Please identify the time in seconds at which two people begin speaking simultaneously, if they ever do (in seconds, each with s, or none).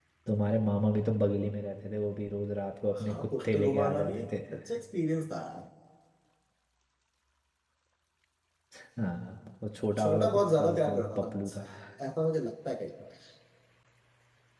3.0 s